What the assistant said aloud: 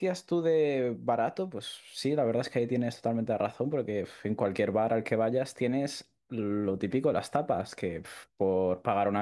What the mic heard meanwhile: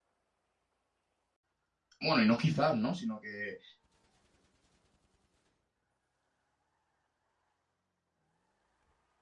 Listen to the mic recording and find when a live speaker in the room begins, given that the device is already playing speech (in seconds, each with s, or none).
2.0 s